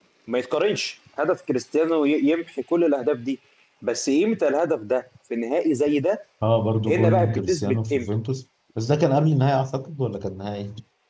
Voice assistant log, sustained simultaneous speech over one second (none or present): present